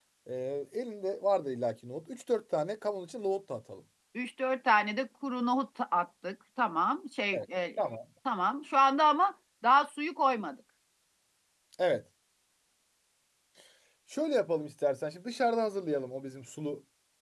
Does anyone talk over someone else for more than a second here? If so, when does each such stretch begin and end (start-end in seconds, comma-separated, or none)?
none